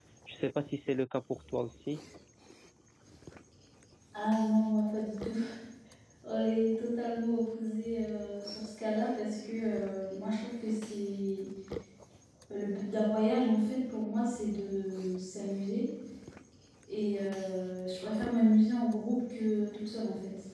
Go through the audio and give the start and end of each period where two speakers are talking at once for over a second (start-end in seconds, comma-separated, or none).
none